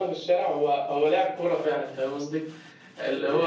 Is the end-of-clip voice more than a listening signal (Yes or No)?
No